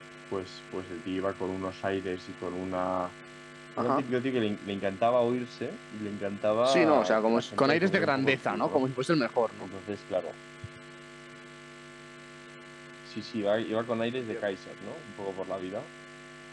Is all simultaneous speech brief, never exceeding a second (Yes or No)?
No